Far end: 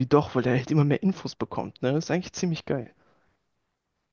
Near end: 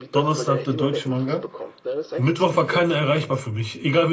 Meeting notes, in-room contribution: present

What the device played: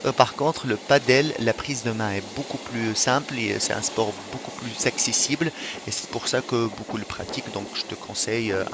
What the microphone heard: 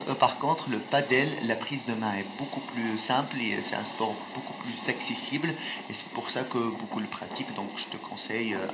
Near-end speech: none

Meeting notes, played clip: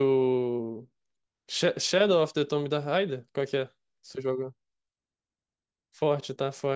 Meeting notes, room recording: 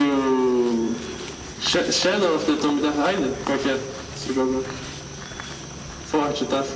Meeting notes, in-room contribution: none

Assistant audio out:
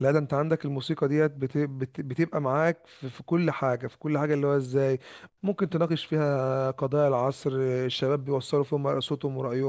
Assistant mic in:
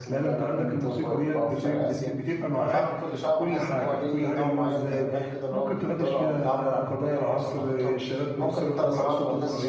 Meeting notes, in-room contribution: present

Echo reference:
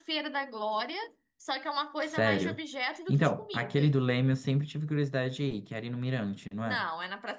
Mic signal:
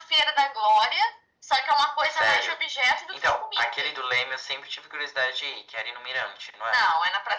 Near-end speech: none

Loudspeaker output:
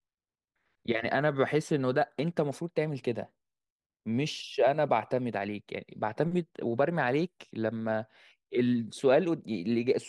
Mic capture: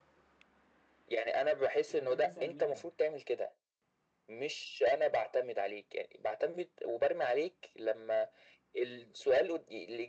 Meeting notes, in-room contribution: present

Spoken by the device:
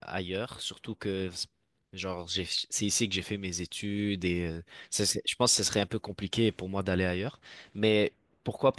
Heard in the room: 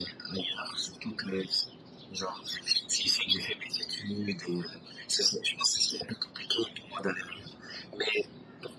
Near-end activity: none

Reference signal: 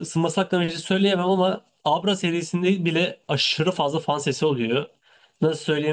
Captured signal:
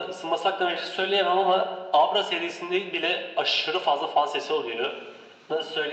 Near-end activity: none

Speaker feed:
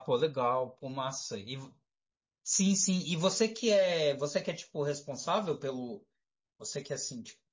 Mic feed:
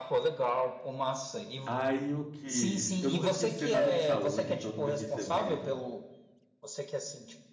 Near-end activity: present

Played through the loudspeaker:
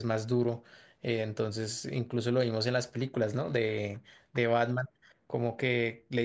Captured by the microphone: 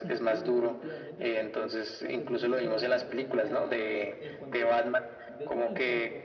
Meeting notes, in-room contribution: present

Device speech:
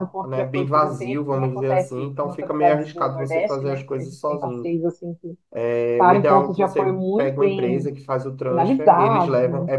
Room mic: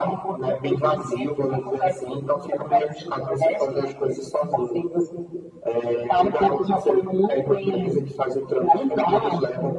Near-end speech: none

